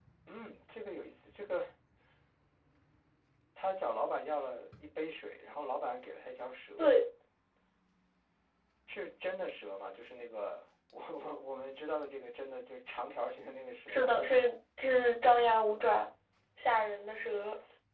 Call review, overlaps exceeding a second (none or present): none